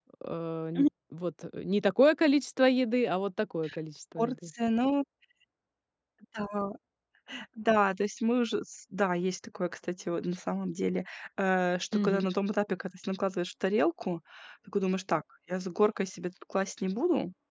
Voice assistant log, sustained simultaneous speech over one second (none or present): none